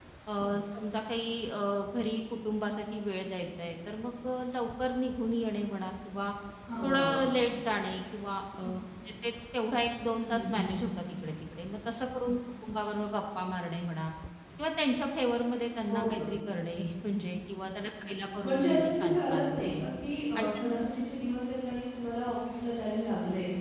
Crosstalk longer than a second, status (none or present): present